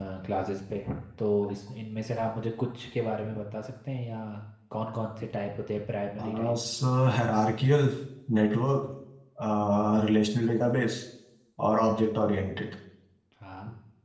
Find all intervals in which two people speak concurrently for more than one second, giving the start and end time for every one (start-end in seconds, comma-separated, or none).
none